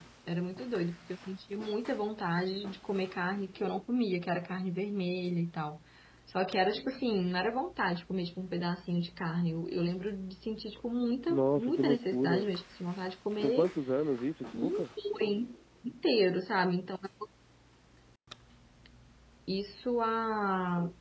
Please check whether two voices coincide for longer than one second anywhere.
Yes, from 11.3 s

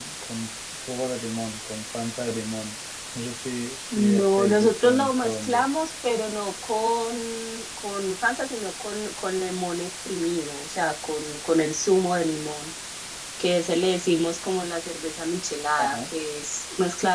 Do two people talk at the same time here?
Yes, from 3.9 s

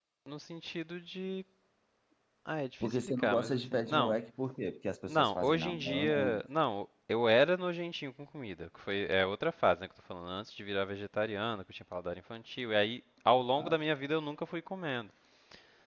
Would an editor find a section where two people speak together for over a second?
Yes, from 2.8 s

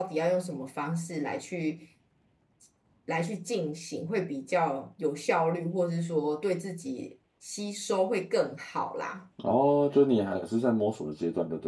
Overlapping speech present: No

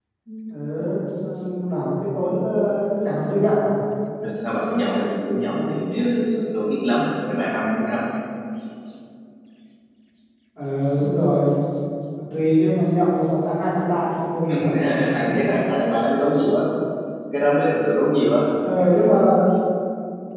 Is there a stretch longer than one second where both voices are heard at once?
No

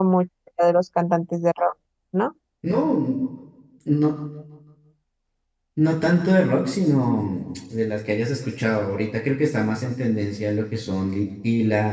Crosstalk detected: No

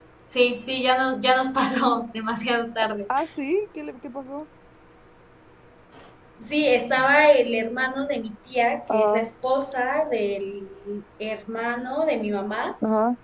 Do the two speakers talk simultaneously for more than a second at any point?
No

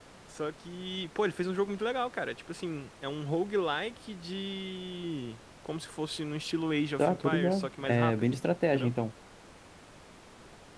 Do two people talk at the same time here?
Yes, from 7.0 s

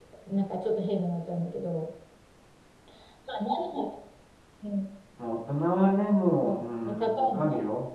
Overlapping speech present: Yes, from 6.4 s

